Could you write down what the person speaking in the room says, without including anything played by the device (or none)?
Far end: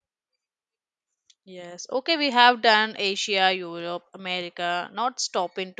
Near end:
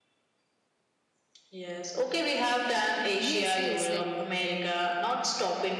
Yes, yes. Like,